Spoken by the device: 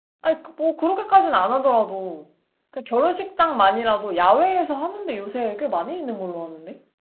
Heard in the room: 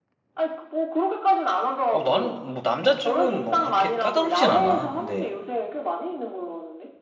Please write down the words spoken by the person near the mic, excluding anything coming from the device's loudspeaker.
어, 나는, 뭐, 남자 쪽은 뭐, 그렇게 까다롭진 않아. 근데,

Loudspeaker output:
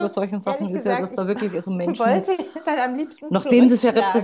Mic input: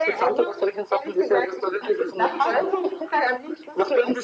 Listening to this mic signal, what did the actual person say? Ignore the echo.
schlagen.

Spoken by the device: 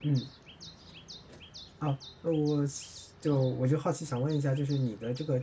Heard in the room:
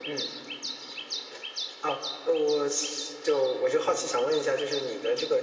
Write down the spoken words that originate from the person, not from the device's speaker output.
none

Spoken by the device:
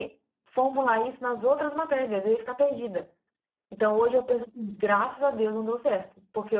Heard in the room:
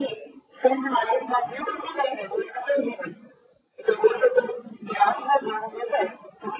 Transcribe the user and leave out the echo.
none

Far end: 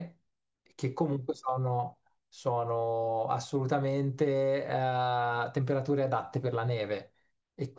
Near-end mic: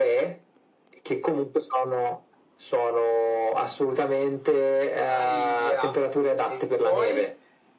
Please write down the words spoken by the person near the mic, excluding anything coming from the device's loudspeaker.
Aia. E poi?

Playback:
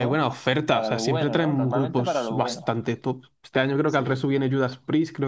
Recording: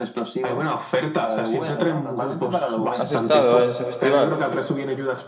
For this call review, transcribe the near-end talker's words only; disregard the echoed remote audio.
¿Has estado en ese festival?

